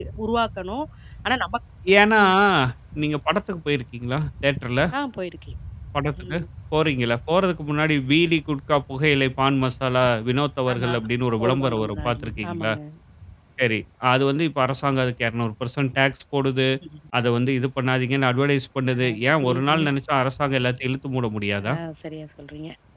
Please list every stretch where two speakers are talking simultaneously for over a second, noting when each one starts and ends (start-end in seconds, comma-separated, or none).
11.4-12.7